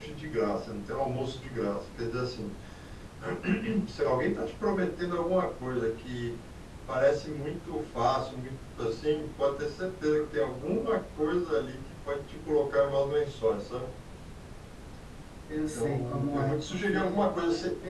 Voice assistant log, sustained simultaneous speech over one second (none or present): present